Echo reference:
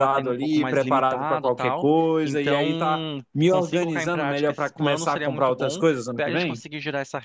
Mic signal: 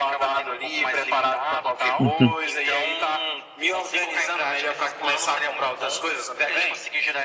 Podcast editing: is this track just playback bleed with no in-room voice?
No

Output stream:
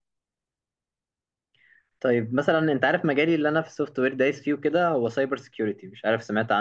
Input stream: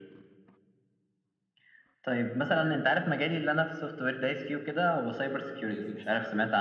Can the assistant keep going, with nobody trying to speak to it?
No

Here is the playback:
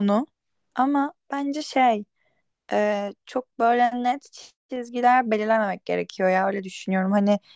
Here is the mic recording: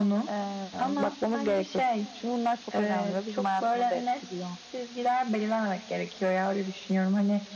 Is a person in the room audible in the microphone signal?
Yes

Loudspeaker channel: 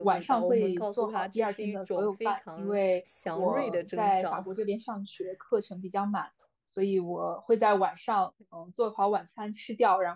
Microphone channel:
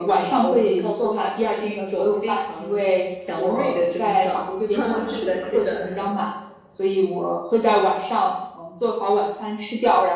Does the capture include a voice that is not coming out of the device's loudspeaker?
Yes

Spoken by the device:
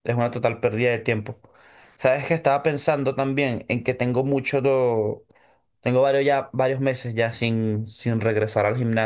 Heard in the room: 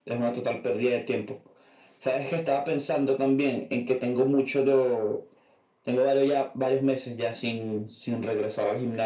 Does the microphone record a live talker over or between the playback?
No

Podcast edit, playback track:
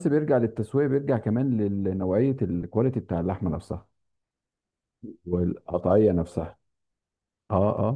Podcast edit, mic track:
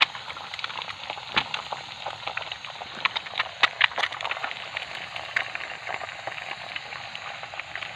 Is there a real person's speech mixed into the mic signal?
No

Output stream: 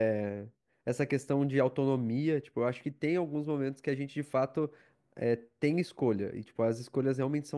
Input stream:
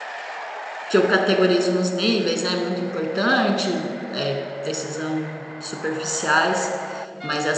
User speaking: Yes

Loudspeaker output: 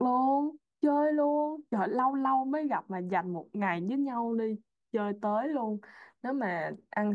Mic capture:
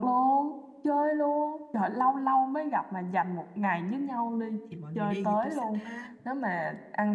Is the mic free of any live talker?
No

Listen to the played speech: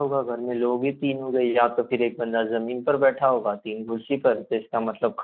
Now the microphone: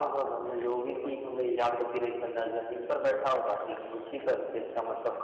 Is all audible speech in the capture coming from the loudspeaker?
No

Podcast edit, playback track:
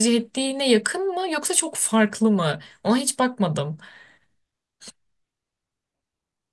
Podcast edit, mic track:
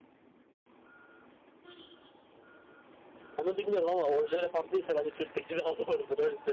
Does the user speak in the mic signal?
Yes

